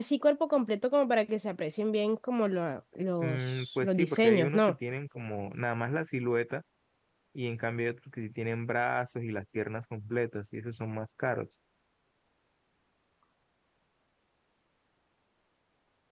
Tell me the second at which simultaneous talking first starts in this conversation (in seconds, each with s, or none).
3.2 s